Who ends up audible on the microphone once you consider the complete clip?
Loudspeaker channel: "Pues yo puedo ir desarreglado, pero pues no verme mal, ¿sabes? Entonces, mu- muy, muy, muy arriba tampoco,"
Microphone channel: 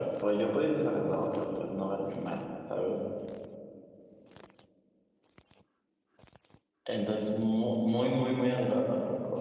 echo only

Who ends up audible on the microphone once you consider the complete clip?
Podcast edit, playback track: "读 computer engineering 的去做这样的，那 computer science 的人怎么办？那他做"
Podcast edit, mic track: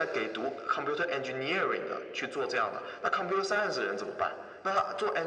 echo only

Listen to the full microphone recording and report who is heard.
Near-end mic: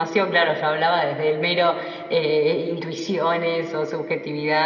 echo only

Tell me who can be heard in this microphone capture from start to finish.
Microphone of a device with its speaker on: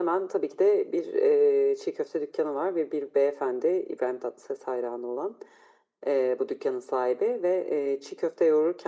echo only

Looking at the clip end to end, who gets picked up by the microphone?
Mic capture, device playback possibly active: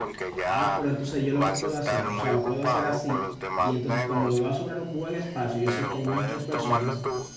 both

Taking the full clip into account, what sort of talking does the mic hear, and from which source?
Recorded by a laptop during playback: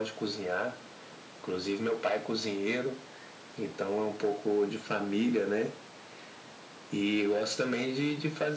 echo only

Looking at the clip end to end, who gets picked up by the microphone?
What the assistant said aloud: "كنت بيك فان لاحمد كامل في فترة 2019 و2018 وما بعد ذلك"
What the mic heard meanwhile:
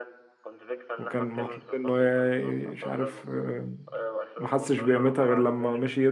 both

